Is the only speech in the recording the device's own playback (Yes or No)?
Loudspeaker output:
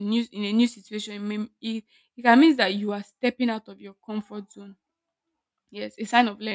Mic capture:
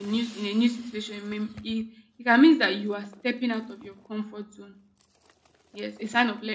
Yes